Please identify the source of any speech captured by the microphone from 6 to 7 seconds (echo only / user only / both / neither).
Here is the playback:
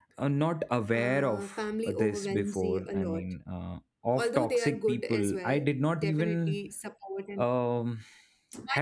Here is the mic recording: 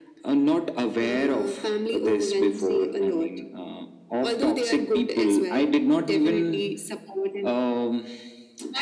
echo only